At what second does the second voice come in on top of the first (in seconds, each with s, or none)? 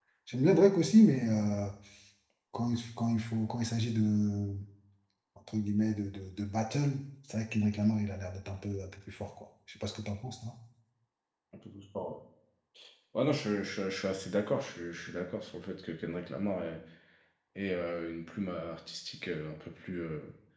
none